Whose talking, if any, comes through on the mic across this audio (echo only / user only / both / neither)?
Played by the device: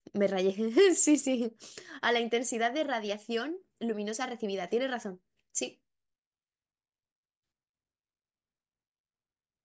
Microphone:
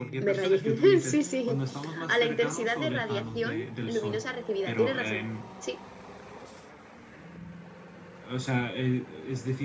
both